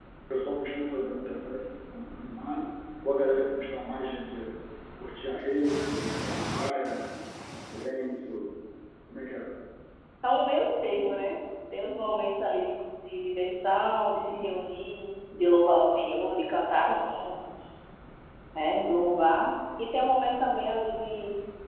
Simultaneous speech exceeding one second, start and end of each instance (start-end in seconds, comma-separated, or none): none